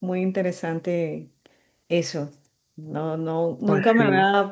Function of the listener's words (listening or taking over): listening